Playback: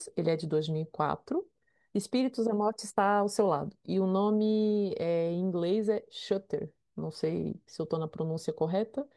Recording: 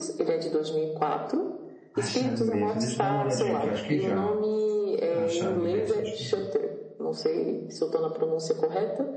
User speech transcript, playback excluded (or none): A chave mestra, deixa eu dar uma olhadinha aqui, eu acho que já. A chave mestra, acho que já.